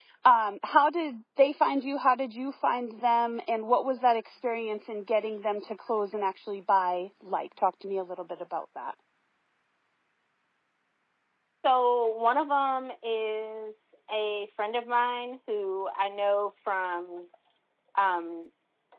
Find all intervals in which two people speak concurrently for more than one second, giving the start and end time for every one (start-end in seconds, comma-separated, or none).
none